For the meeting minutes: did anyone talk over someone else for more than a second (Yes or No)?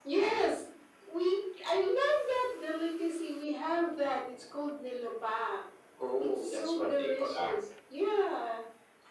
Yes